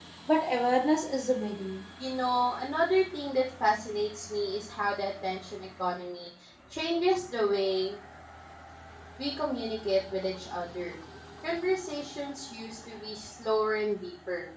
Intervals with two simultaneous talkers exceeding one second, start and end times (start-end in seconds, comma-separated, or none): none